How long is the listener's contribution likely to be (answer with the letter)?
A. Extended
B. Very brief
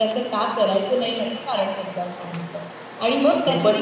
B